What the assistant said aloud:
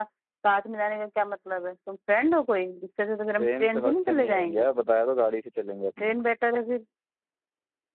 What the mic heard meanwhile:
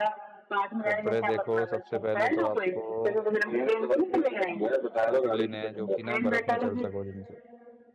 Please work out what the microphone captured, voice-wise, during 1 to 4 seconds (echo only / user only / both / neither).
both